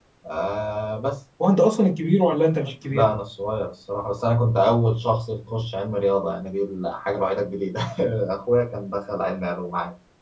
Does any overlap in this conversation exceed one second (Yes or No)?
No